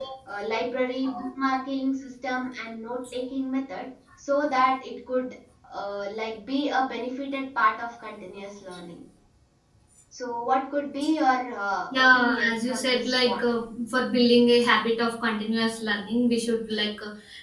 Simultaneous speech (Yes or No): Yes